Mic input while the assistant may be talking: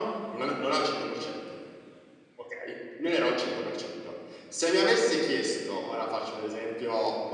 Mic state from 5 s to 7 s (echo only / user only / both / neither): echo only